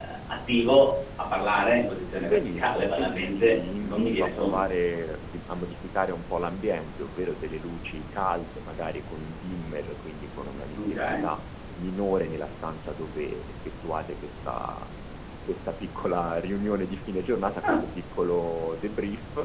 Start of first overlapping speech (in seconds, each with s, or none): 2.2 s